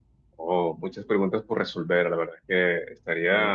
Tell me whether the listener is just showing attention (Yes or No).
Yes